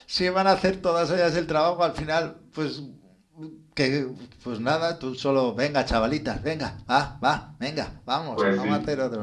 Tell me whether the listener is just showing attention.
No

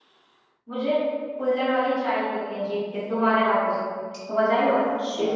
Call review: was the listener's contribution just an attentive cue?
No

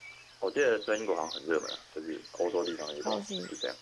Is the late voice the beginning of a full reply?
Yes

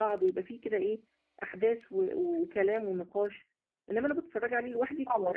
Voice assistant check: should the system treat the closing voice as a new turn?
No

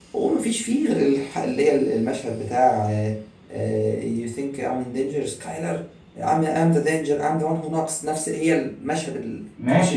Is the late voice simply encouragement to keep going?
No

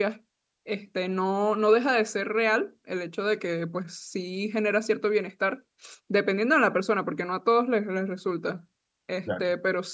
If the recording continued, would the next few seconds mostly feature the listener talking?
No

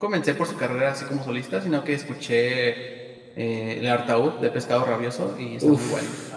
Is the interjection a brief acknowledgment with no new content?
No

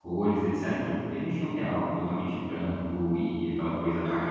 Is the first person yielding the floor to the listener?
Yes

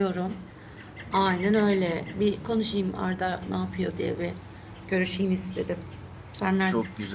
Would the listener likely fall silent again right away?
No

